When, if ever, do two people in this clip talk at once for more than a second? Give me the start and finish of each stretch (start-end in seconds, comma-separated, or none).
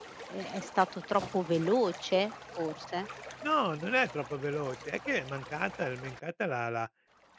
none